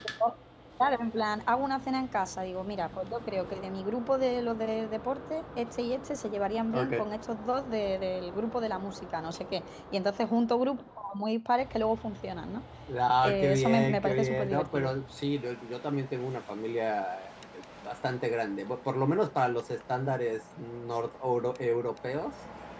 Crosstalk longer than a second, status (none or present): present